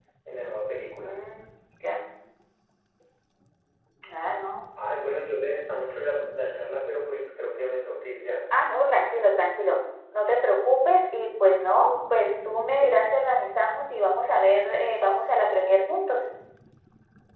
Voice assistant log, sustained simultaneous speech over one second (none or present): none